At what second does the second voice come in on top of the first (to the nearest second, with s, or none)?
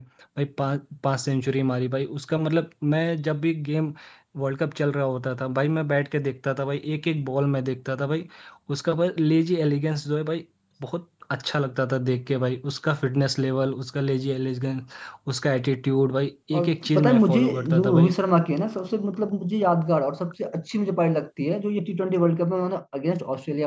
17 s